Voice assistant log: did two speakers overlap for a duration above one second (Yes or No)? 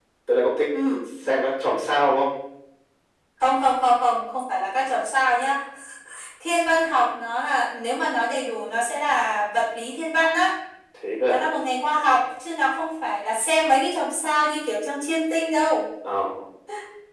No